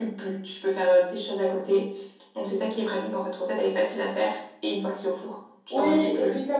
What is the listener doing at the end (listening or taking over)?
taking over